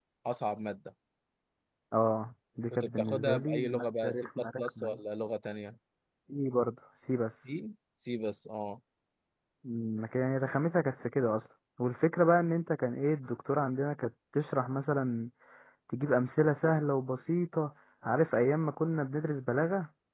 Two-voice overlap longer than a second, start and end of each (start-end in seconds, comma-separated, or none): 2.7-5.0